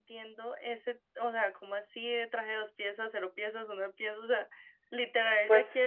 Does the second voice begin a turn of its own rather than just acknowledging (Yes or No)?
No